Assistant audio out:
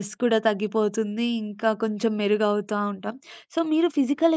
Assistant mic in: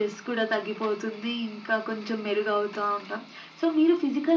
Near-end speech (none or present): none